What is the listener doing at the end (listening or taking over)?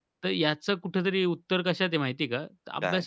listening